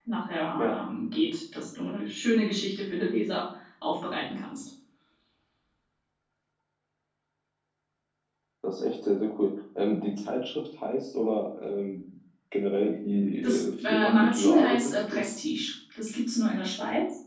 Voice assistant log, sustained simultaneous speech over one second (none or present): present